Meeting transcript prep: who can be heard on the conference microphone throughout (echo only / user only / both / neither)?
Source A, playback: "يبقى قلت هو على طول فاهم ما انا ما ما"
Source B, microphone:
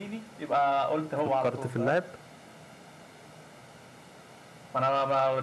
both